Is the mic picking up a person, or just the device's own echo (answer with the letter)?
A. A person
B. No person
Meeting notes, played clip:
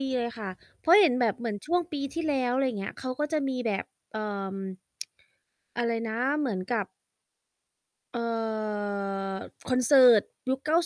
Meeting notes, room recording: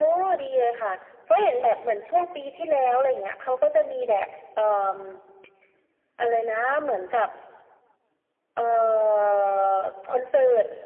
B